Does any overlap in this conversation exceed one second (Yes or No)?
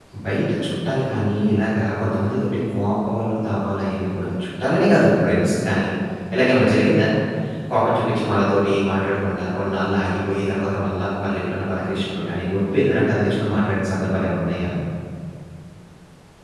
No